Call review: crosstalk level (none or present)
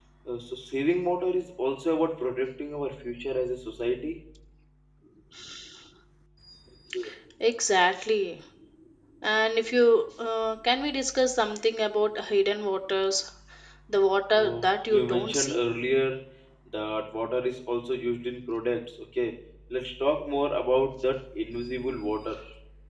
present